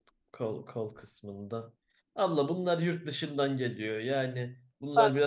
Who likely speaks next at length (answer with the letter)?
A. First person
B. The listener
A